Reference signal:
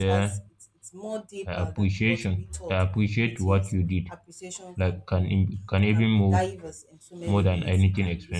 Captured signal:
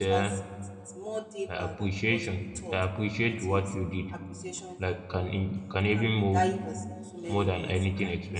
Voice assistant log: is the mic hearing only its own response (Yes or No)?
Yes